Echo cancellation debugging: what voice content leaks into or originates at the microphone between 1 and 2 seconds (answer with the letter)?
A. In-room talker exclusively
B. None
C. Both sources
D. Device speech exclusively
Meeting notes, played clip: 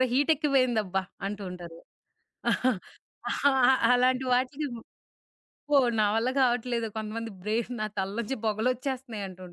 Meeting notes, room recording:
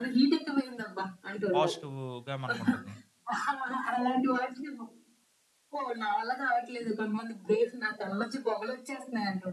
C